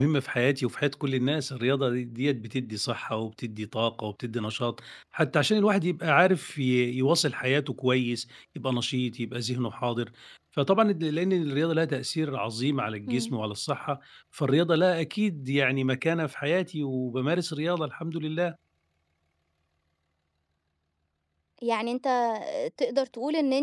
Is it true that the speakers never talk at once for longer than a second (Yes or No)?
Yes